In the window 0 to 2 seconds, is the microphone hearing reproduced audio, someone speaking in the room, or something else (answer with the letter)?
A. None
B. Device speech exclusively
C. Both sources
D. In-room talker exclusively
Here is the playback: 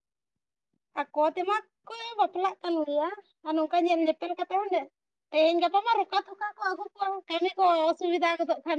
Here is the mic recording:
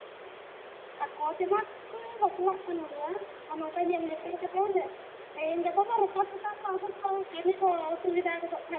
B